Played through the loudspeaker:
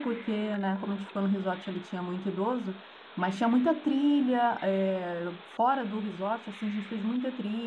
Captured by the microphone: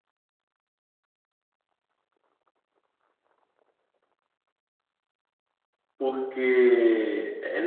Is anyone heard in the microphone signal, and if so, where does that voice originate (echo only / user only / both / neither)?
user only